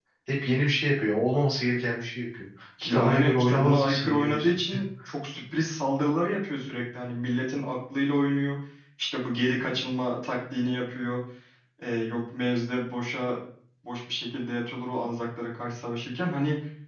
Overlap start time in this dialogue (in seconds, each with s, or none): 2.8 s